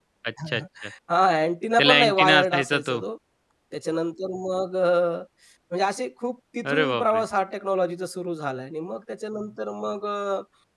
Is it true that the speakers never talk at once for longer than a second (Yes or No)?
No